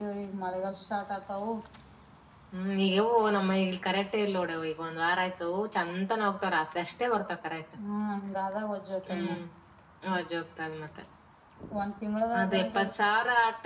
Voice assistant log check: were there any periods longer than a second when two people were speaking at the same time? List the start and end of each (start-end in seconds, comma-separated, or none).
none